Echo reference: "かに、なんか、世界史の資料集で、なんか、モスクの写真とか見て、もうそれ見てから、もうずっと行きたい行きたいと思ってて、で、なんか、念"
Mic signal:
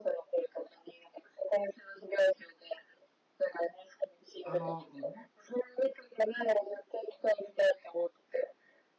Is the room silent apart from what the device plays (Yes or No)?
No